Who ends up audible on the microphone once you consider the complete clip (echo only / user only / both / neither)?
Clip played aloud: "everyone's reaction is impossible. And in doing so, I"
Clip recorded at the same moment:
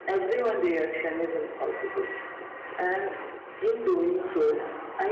echo only